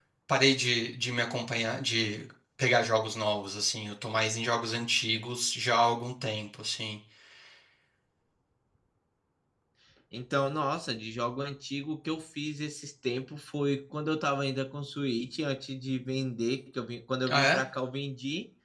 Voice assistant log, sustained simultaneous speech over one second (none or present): none